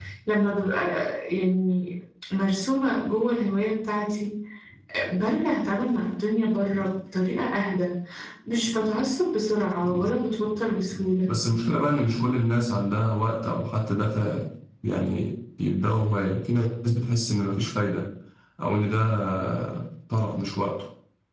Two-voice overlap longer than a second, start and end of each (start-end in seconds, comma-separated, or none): none